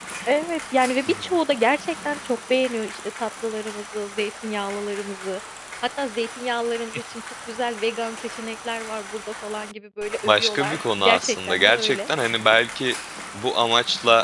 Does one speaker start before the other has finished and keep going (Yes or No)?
Yes